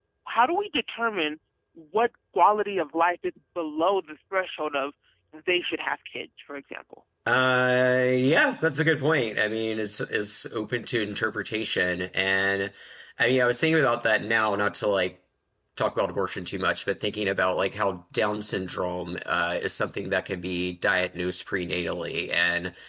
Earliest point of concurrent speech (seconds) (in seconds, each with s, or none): none